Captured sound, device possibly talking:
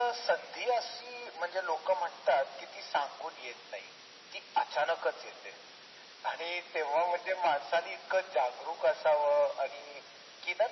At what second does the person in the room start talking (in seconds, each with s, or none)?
none